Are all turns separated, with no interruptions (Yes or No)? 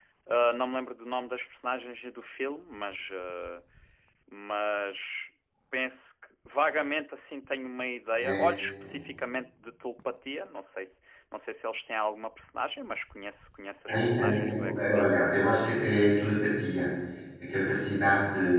No